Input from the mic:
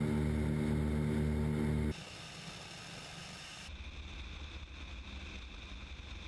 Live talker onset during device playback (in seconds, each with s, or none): none